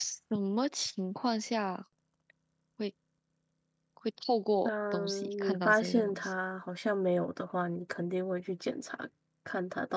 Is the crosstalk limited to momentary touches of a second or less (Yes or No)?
No